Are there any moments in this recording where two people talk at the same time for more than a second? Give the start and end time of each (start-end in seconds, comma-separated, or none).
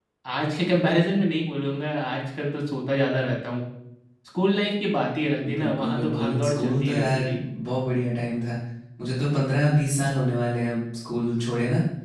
5.5-7.2